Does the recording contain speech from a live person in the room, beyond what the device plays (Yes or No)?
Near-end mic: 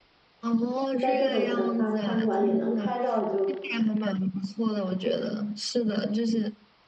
Yes